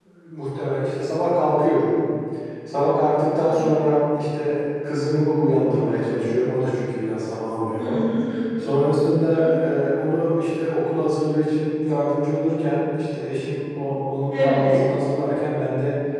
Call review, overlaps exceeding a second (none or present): none